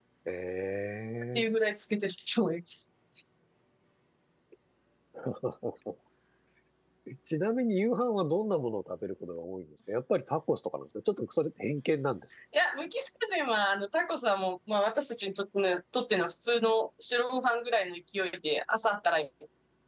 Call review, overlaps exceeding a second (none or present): none